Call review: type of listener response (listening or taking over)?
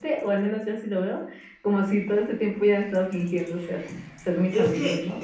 taking over